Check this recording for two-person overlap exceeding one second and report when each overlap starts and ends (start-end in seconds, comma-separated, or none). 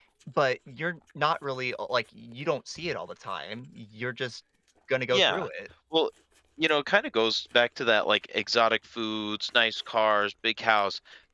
none